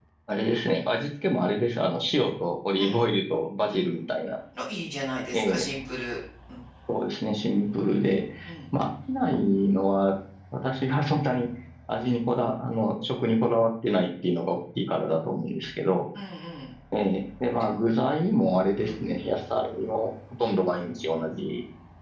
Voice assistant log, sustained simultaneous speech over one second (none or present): none